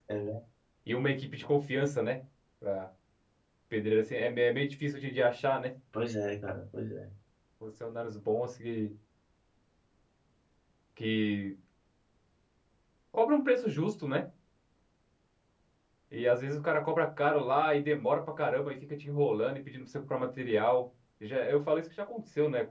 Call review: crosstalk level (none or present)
none